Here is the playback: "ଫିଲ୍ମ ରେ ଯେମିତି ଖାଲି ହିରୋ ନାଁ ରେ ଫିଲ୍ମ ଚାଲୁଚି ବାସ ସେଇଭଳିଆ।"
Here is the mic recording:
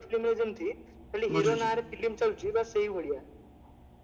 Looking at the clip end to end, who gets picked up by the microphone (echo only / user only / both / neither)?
both